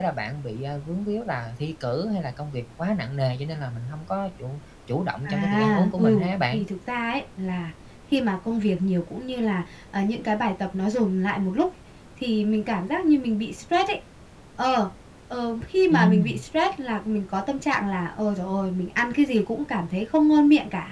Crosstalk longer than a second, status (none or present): present